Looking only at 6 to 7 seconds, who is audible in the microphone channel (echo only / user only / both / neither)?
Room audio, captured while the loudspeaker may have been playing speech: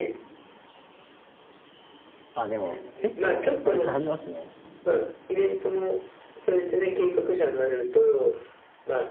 echo only